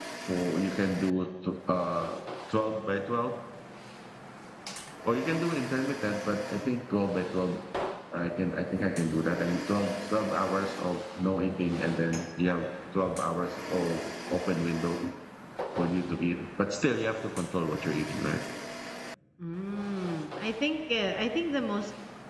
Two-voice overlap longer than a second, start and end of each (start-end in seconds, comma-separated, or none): none